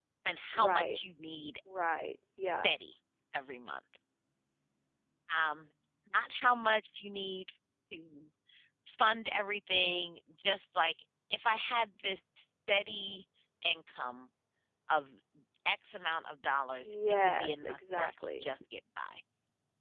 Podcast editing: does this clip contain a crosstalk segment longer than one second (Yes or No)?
Yes